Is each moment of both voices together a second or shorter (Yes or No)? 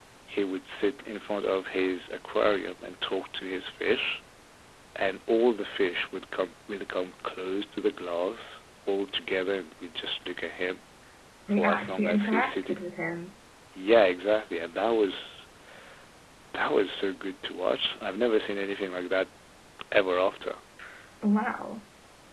No